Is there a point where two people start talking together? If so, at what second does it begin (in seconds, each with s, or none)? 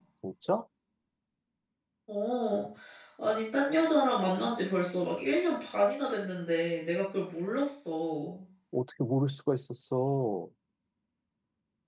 none